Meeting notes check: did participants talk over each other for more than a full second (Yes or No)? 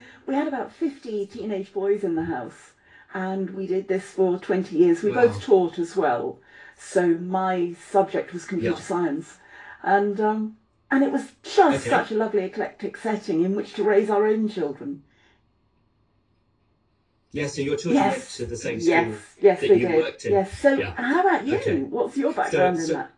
Yes